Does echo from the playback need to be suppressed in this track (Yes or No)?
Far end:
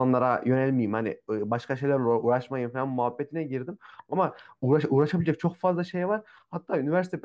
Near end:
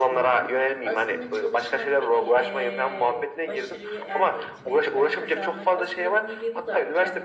Yes